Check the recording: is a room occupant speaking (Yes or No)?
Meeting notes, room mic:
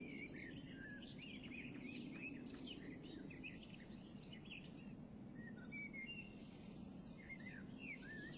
No